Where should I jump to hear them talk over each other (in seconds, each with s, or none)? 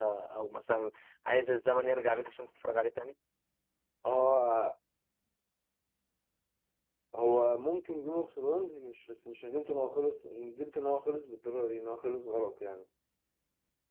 none